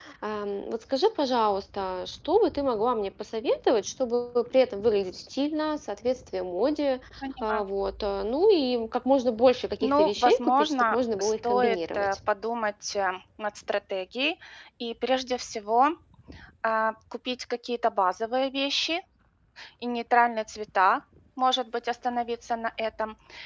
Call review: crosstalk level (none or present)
present